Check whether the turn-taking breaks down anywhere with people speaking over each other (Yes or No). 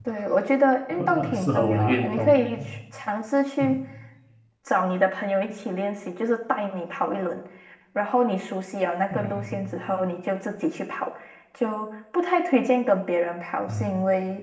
Yes